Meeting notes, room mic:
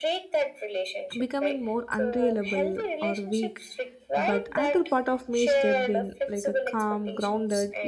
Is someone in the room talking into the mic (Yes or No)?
Yes